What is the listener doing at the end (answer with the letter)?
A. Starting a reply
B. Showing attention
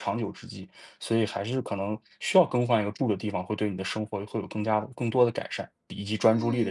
A